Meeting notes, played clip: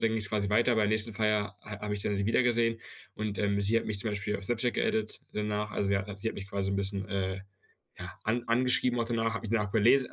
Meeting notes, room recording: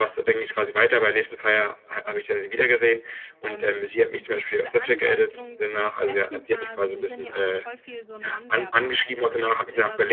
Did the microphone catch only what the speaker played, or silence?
No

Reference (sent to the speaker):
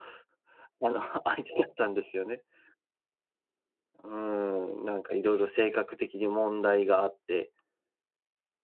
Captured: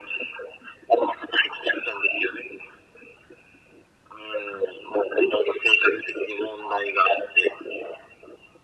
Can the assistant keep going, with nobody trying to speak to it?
Yes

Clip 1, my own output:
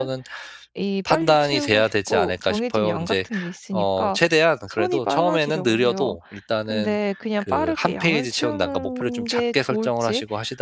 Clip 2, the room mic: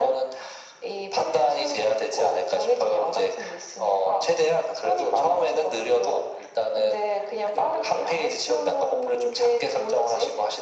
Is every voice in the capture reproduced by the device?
Yes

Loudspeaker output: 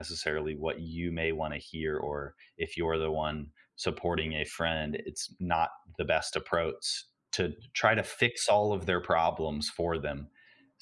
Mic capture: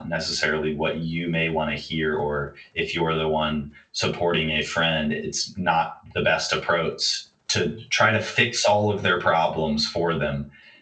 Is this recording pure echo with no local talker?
Yes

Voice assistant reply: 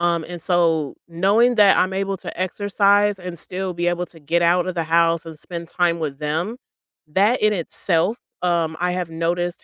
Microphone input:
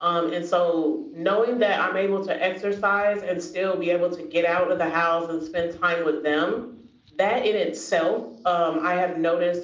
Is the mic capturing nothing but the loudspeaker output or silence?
Yes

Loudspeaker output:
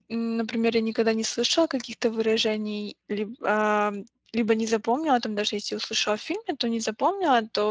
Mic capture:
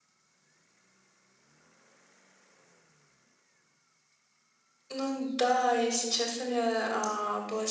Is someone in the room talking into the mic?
Yes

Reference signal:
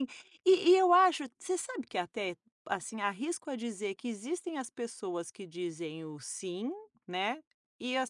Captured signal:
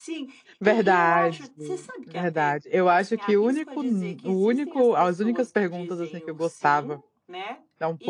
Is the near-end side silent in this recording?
No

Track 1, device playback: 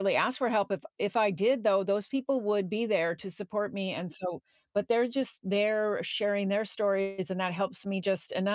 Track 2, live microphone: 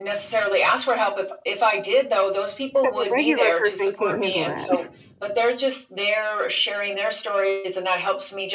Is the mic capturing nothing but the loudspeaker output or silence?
No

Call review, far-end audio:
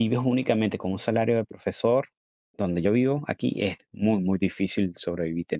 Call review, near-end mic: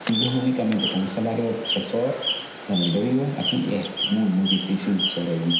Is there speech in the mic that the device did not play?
No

